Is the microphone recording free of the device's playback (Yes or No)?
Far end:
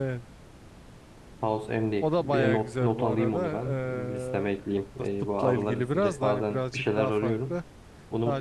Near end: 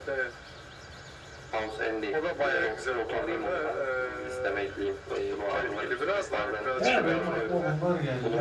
No